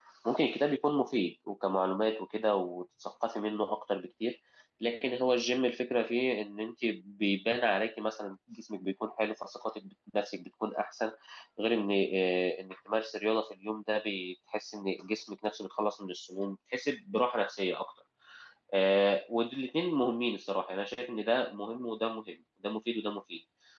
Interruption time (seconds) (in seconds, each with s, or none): none